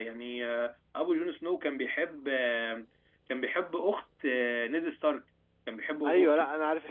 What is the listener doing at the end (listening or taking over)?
taking over